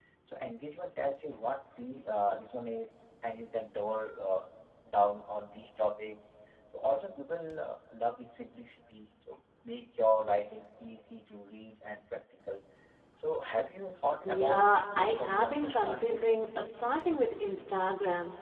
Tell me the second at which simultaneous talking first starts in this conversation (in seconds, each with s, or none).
14.2 s